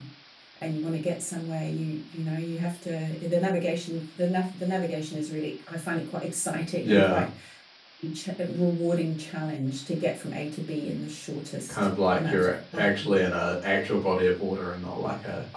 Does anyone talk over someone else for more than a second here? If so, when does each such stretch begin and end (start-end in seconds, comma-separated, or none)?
11.7-13.2